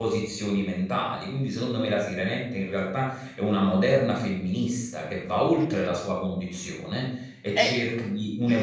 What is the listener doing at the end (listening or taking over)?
listening